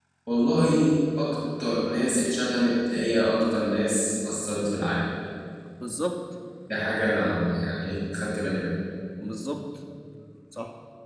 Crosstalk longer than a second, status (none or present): none